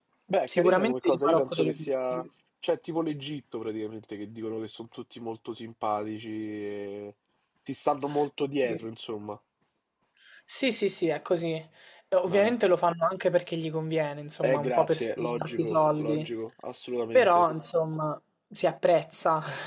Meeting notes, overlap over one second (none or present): present